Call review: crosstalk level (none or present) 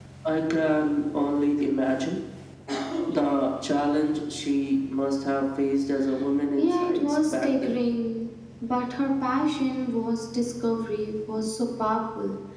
present